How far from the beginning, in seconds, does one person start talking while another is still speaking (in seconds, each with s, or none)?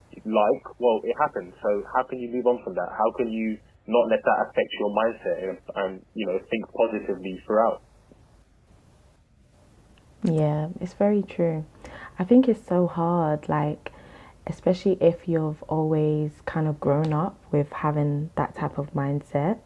none